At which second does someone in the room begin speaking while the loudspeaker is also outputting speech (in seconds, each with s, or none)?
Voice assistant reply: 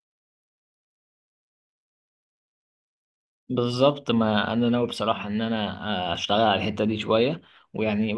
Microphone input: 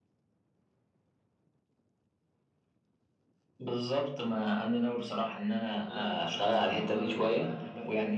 5.8 s